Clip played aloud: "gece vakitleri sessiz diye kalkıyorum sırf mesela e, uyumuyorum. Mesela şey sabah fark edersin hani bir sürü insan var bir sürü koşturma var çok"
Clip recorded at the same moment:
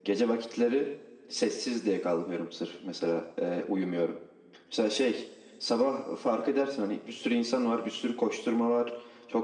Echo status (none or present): present